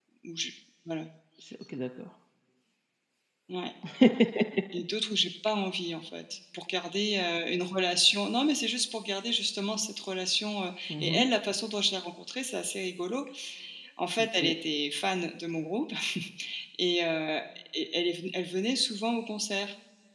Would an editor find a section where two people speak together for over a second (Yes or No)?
No